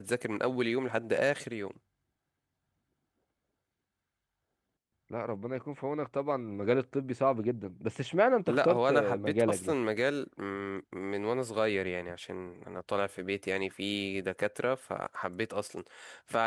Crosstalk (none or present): present